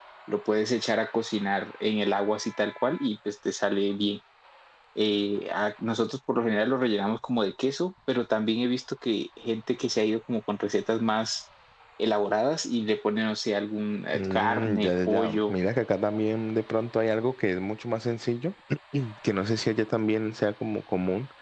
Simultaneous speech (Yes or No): Yes